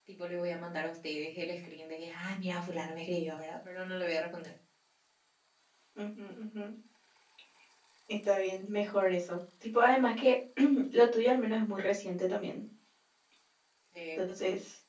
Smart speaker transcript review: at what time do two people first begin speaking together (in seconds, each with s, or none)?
none